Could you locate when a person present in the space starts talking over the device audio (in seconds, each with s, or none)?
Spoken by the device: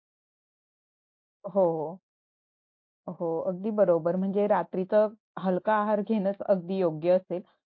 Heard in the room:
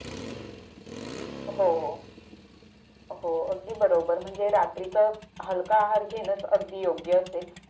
none